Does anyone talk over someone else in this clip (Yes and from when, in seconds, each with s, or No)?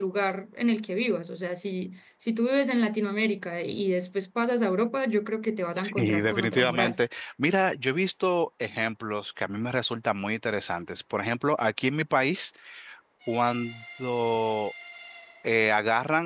Yes, from 5.8 s